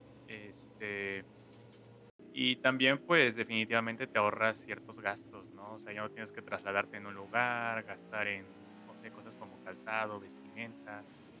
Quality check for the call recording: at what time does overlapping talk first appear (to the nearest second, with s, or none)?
none